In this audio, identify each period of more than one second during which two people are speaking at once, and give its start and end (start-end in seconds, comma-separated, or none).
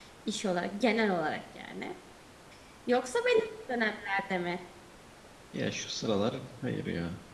none